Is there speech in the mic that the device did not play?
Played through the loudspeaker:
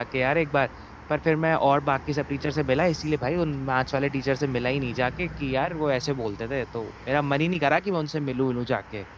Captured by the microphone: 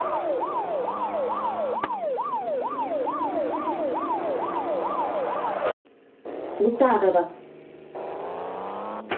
Yes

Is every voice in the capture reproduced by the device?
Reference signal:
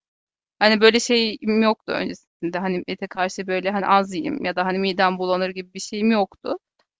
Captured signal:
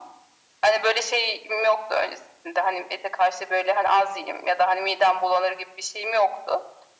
Yes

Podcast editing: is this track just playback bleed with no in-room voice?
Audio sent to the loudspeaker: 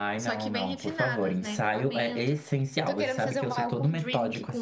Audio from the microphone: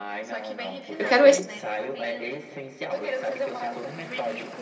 No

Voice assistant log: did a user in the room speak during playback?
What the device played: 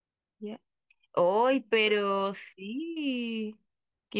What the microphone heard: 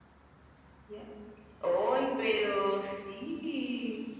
No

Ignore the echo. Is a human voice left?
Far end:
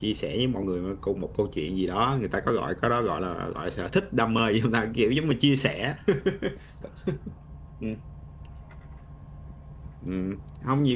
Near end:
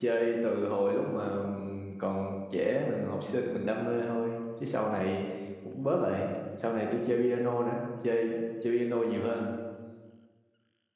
Yes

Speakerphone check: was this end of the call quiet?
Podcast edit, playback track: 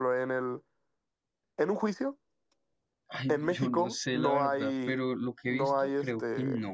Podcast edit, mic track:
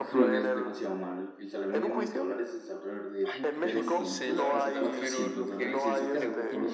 No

